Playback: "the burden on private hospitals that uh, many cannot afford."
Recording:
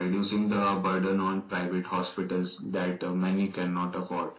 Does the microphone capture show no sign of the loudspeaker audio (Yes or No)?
No